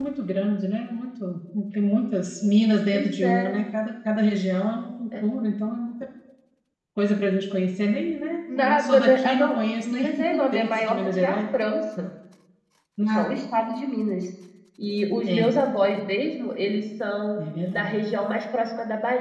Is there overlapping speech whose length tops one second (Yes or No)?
Yes